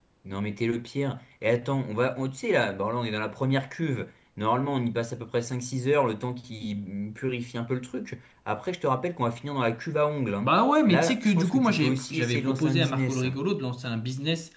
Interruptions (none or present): present